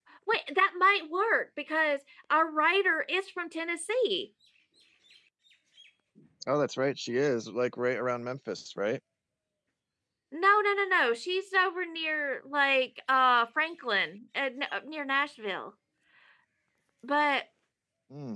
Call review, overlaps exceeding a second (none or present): none